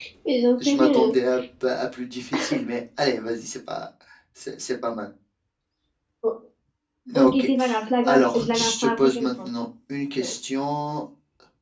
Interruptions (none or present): present